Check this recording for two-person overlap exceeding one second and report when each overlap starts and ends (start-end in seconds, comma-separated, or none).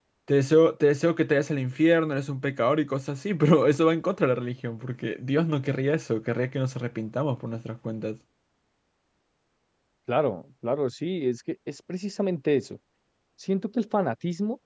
none